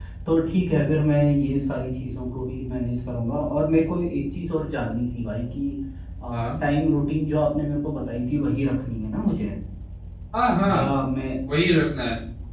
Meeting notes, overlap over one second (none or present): none